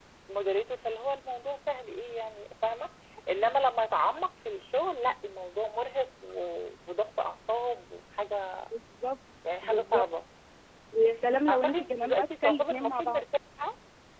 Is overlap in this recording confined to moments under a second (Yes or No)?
No